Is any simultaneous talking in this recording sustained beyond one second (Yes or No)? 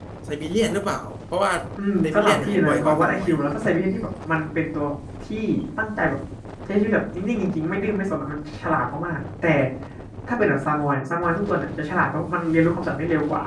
Yes